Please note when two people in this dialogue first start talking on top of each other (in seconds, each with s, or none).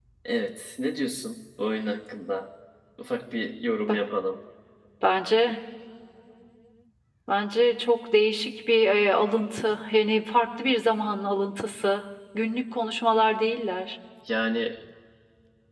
none